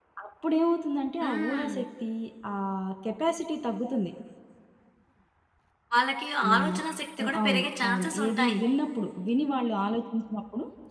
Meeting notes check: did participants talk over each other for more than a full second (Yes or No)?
Yes